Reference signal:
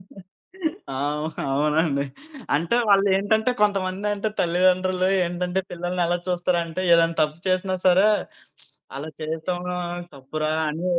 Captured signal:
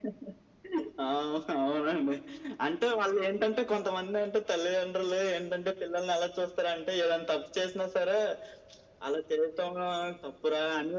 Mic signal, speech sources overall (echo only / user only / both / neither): echo only